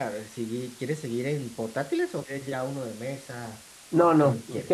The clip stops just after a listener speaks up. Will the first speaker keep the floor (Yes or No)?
No